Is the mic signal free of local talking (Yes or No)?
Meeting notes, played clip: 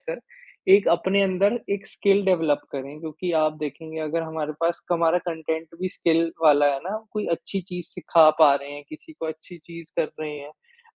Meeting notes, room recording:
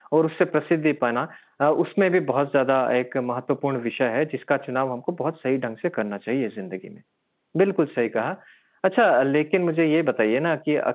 No